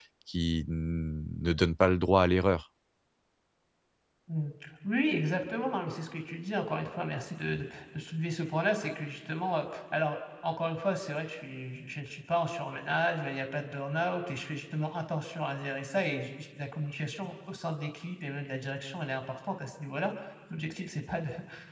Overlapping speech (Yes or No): No